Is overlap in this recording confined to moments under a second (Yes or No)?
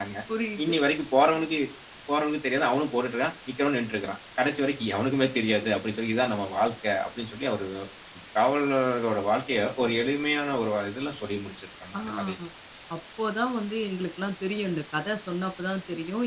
Yes